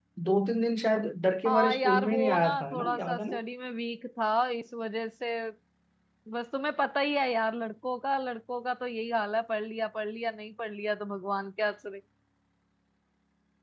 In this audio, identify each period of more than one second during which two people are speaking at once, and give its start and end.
1.5-3.4

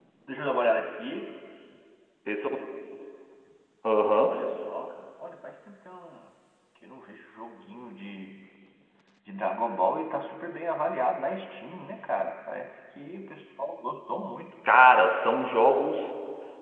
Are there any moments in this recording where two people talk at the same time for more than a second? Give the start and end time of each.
none

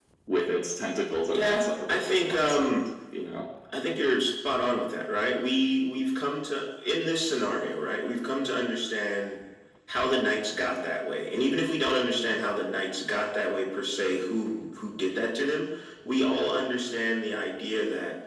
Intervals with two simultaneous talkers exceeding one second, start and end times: 1.3-2.7

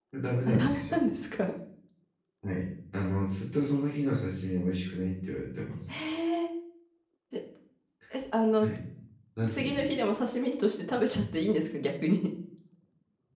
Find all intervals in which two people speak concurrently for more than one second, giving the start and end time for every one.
none

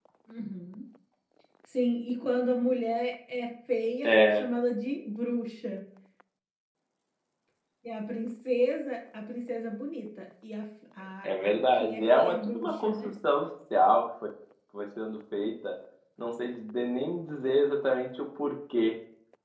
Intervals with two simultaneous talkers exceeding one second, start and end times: 11.2-13.1

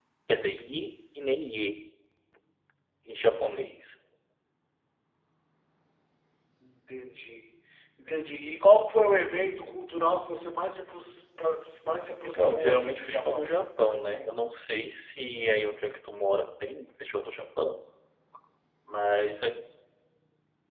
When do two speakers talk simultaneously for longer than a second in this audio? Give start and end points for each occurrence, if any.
12.2-13.5

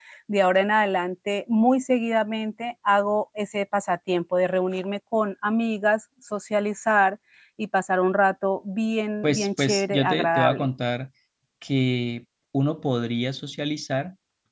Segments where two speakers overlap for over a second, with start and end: 9.2-10.7

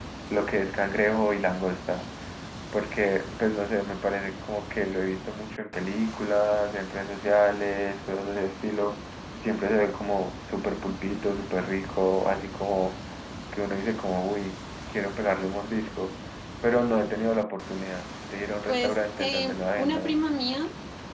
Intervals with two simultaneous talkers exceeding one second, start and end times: 18.7-20.2

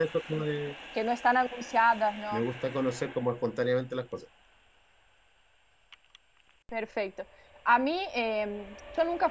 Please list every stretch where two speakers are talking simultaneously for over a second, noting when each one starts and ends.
none

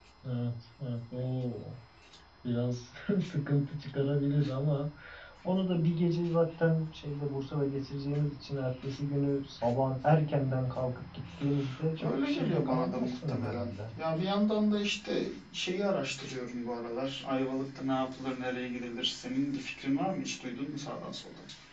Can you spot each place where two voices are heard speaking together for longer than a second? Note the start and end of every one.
12.0-13.7

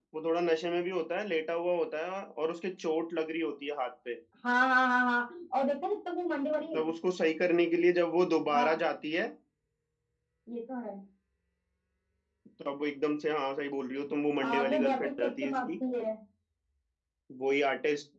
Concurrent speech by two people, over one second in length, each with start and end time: 14.5-15.7

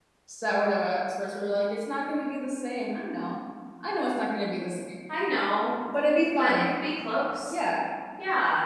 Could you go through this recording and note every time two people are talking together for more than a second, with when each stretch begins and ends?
none

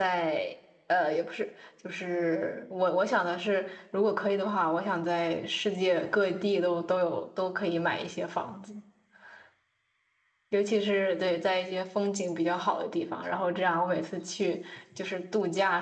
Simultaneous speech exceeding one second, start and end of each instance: none

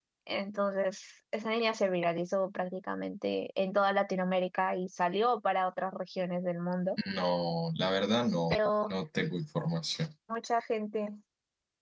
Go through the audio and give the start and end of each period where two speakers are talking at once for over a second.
none

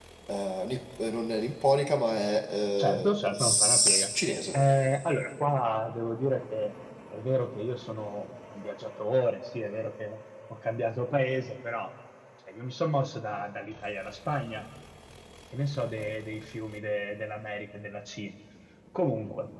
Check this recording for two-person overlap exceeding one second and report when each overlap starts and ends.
2.8-4.1

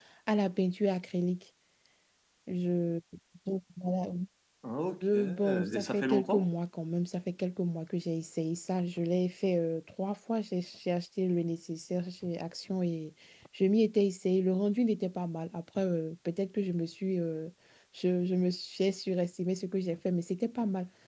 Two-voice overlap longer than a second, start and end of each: 5.1-6.5

